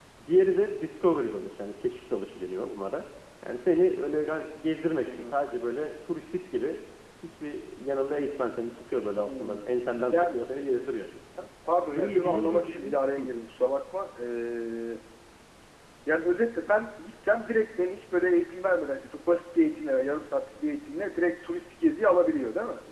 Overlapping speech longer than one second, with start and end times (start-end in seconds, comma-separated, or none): 11.9-13.3